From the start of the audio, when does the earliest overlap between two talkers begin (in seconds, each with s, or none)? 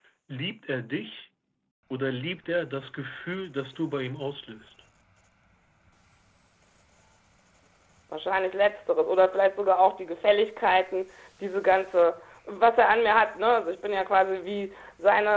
none